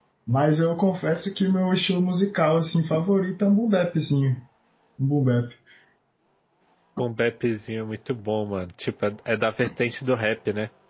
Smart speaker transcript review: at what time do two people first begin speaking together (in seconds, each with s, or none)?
none